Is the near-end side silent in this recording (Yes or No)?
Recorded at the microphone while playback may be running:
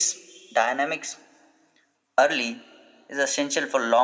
Yes